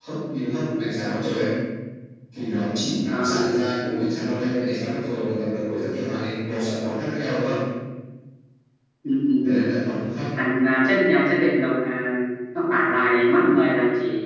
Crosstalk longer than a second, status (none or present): none